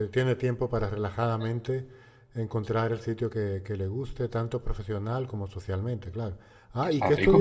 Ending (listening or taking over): taking over